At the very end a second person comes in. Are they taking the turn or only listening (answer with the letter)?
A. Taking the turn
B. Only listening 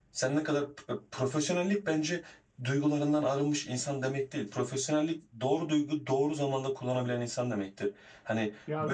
B